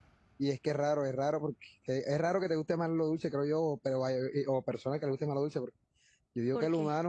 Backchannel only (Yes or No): Yes